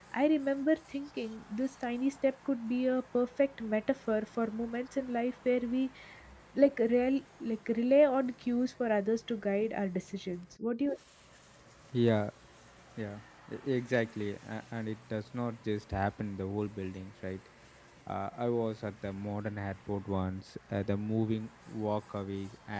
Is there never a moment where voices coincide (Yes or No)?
Yes